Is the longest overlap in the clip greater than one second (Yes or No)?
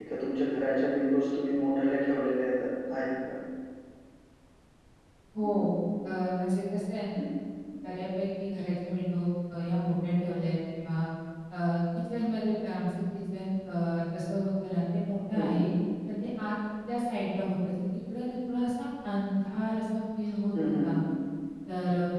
No